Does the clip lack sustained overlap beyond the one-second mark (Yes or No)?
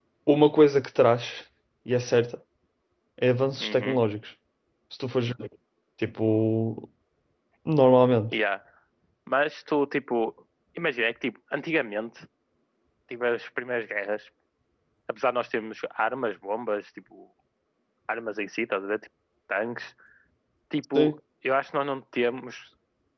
Yes